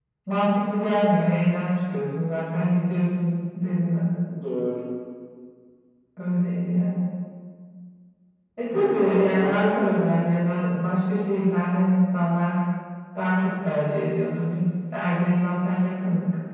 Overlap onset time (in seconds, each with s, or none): 8.7 s